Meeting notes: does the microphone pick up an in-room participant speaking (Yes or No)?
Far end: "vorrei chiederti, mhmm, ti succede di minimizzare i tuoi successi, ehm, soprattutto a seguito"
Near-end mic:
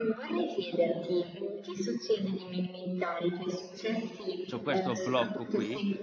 Yes